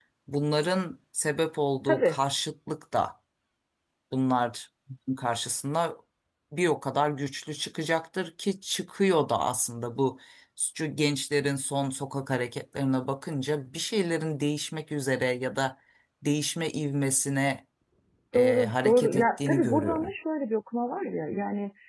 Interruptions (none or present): present